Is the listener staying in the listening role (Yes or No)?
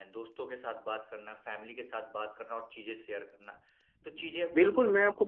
No